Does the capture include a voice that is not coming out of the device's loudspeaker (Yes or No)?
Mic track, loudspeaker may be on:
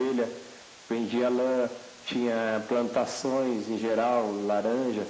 No